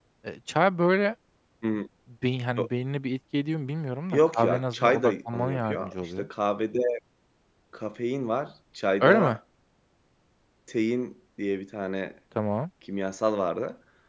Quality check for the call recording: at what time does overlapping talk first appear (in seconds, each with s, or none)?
4.1 s